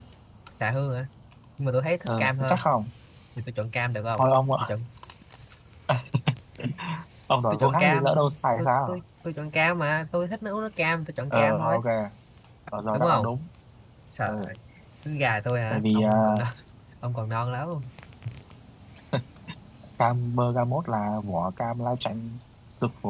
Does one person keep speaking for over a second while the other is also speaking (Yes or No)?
Yes